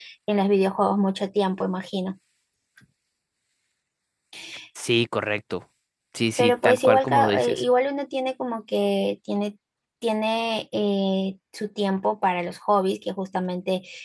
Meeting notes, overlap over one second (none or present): present